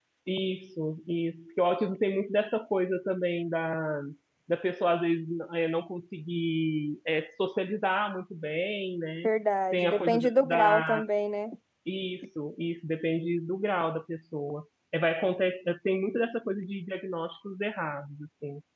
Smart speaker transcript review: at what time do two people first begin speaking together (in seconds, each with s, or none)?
9.7 s